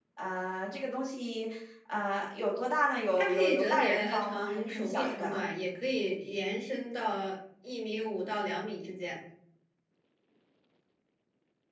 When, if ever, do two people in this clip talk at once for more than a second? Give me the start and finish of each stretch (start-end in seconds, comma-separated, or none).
3.2-5.4